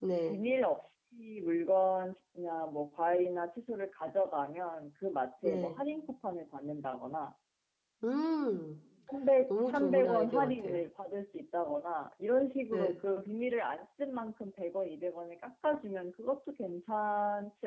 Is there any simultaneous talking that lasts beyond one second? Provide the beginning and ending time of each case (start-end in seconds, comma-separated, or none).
9.5-10.8